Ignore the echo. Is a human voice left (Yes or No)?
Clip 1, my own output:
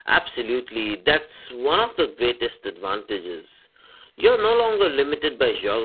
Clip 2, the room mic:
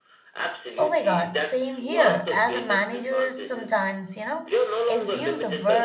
Yes